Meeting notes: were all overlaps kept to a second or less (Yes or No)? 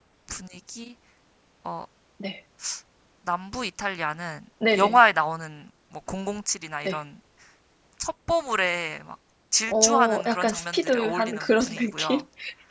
No